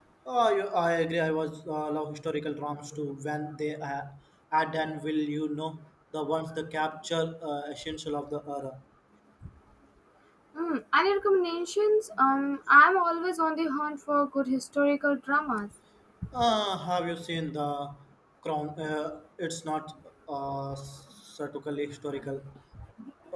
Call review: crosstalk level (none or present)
none